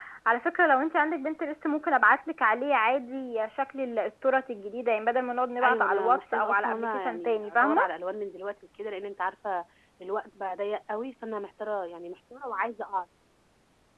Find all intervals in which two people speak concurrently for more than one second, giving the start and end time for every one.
5.6-7.9

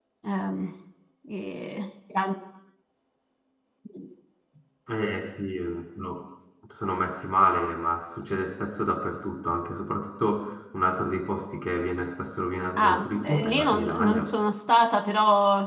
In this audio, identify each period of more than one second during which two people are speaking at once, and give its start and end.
12.8-14.3

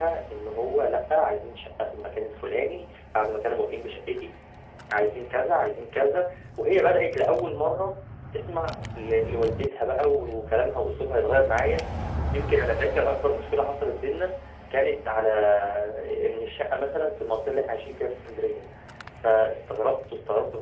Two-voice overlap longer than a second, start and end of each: none

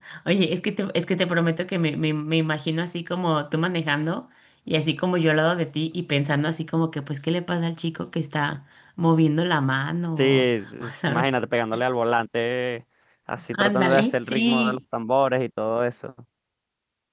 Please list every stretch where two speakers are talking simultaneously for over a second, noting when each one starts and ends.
13.5-14.8

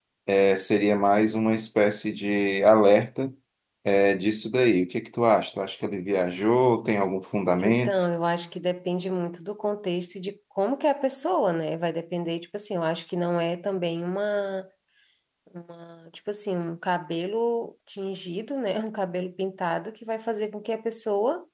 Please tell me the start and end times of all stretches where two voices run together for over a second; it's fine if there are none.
none

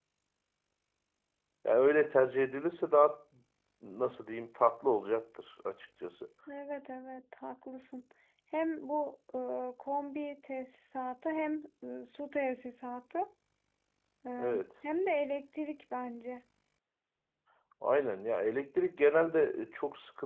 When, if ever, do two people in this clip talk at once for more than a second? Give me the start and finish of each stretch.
none

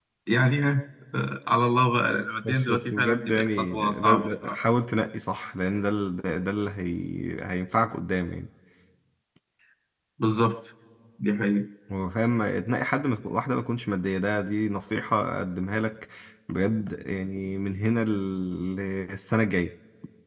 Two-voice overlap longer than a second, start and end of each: 2.4-4.6

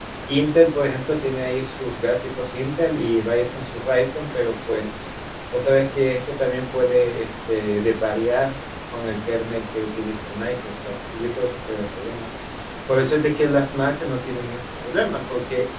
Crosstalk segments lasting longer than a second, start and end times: none

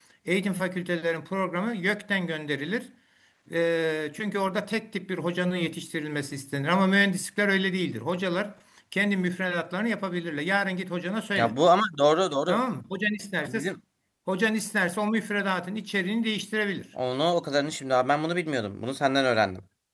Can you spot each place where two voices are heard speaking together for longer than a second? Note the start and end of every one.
none

